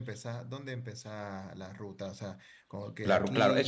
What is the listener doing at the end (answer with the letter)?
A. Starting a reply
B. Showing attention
A